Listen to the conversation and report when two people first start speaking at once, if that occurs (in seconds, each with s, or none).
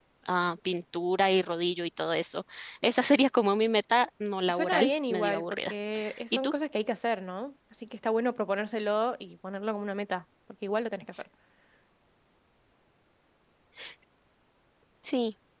4.5 s